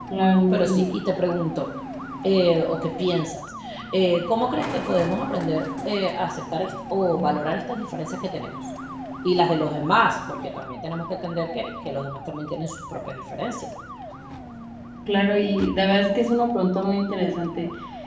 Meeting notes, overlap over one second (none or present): none